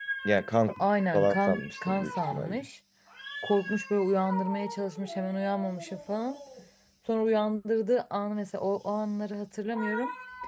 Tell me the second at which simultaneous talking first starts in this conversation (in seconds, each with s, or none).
1.1 s